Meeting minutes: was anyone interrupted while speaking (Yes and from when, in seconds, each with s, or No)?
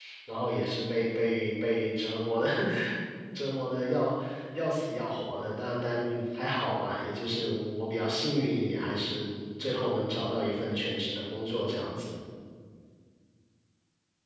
No